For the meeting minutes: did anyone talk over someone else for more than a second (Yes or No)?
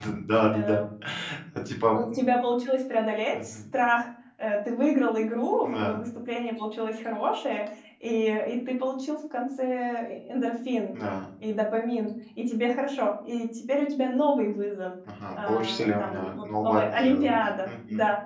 Yes